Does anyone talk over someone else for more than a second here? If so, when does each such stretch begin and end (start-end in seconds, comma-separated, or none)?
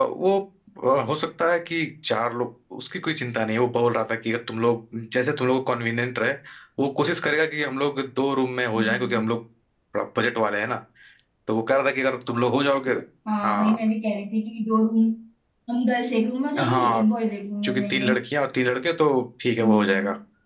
none